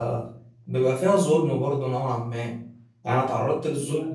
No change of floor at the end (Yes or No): Yes